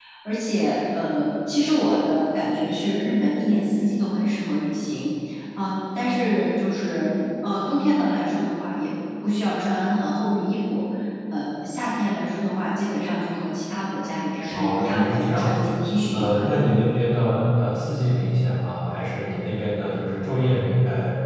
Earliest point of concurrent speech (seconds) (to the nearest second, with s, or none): 15 s